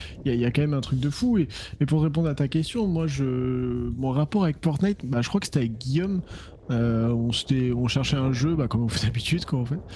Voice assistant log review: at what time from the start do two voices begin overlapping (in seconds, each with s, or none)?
none